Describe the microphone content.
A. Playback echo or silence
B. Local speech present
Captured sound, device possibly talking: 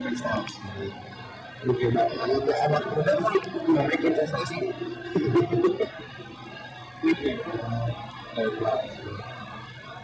A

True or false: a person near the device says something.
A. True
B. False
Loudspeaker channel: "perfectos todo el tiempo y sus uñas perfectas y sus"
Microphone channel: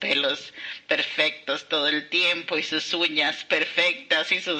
B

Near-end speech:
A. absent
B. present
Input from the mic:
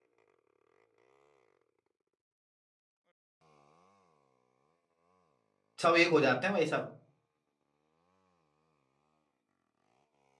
B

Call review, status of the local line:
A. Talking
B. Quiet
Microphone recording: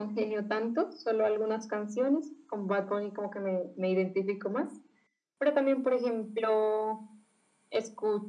B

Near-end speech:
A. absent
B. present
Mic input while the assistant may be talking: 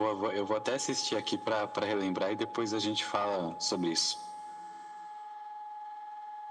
A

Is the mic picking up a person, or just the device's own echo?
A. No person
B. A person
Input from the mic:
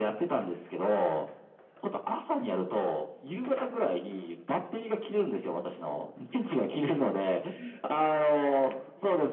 A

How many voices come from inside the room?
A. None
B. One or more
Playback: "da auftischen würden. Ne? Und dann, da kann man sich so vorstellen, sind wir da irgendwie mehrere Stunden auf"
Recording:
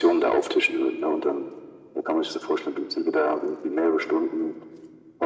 A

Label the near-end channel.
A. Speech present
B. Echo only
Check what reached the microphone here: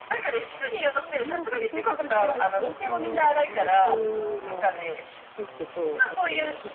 A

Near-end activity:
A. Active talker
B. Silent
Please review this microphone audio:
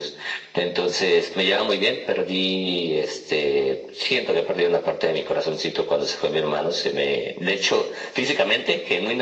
B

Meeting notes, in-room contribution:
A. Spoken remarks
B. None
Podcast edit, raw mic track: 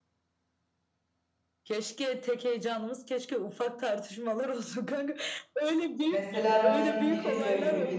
A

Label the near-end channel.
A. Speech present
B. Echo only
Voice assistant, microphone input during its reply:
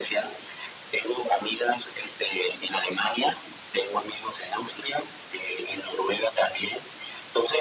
B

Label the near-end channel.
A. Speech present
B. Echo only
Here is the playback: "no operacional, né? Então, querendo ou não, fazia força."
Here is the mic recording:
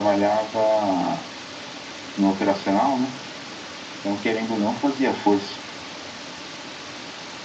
B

